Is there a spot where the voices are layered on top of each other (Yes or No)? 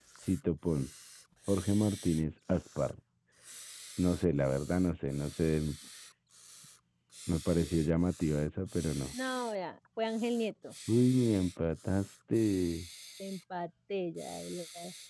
No